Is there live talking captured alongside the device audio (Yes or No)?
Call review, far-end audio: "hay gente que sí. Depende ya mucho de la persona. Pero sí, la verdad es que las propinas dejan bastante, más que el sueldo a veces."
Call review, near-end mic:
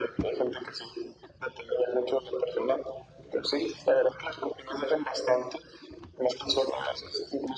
No